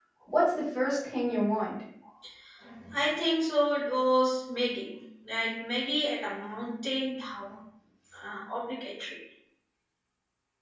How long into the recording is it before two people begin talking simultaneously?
none

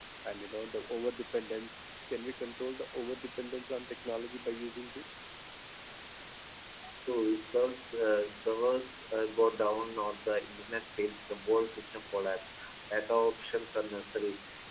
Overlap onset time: none

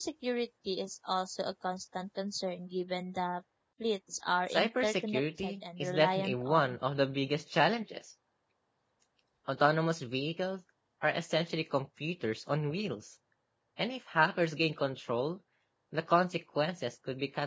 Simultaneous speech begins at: 4.5 s

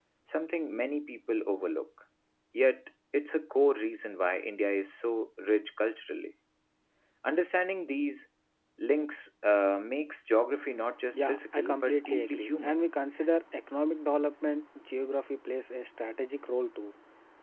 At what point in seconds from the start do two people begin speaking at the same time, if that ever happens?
11.1 s

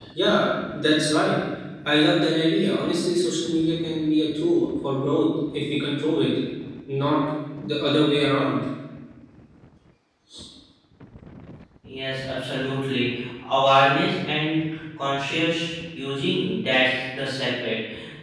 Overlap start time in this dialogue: none

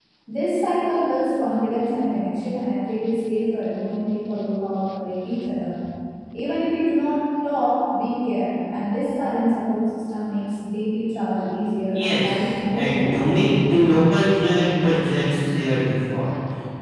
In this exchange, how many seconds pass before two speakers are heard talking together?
11.9 s

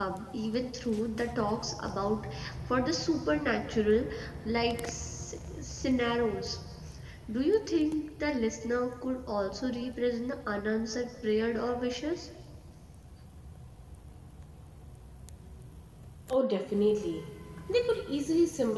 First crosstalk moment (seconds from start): none

